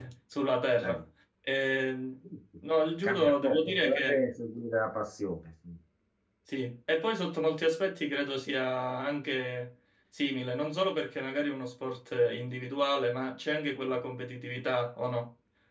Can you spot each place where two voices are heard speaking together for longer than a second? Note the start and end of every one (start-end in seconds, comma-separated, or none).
3.0-4.3